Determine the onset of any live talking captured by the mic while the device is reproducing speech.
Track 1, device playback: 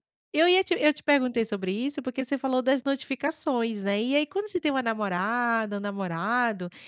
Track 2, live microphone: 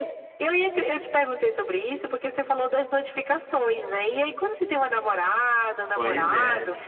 6 s

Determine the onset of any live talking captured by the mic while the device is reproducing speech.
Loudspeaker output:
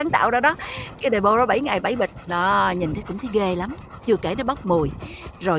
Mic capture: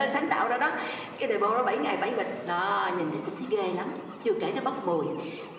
none

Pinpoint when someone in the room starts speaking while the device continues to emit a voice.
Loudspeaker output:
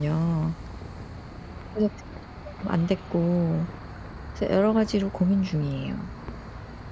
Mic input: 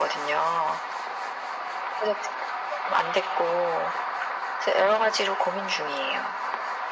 none

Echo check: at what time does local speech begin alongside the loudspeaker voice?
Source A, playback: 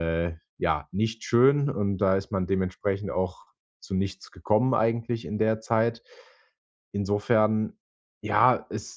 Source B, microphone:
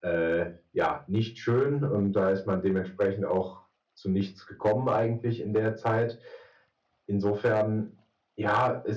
none

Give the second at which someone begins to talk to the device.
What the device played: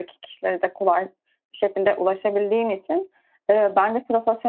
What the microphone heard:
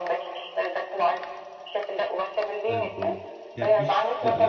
3 s

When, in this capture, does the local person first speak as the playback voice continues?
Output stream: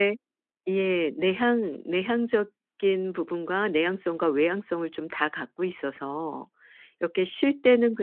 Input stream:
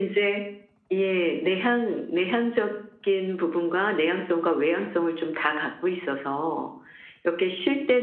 none

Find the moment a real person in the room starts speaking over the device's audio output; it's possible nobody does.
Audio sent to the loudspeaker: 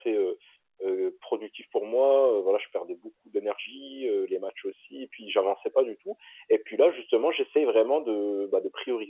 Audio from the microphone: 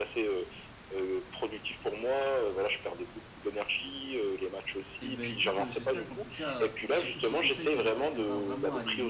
5 s

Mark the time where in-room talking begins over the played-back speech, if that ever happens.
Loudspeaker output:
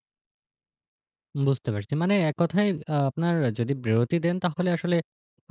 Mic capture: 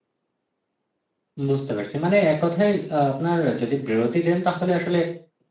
none

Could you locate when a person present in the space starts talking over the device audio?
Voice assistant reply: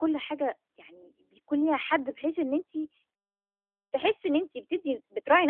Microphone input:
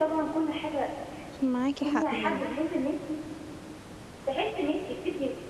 1 s

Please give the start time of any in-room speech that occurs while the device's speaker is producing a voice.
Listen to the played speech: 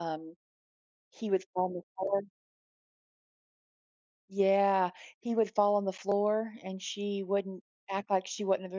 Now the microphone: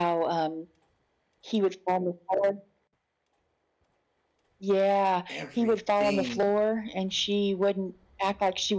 5 s

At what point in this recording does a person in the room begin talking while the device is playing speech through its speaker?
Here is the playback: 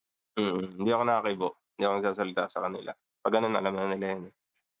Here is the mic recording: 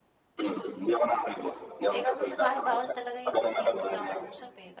2 s

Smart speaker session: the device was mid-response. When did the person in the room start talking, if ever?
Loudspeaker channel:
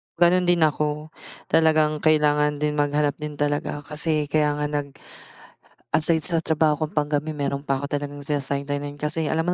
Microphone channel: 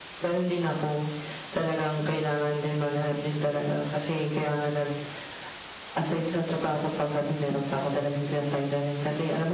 none

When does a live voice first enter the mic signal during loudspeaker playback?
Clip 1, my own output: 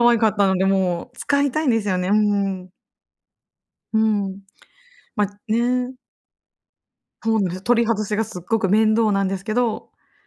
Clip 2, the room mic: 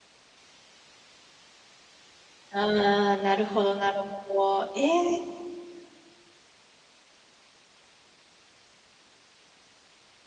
2 s

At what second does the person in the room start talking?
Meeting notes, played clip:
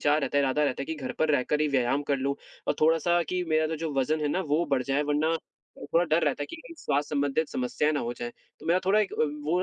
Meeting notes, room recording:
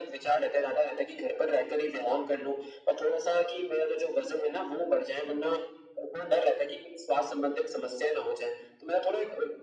none

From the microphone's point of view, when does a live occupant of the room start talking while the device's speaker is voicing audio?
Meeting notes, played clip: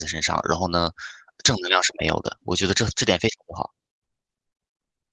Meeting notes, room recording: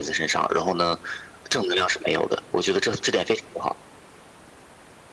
none

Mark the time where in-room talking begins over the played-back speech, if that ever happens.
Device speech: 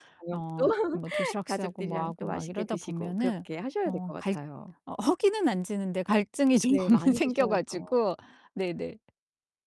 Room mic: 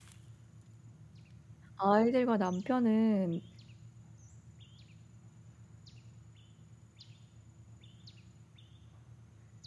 2 s

